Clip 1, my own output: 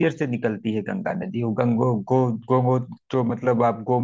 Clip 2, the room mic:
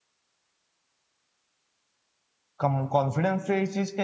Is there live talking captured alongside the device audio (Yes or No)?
Yes